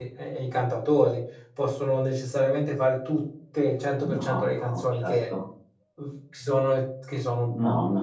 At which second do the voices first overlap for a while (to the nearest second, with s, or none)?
4 s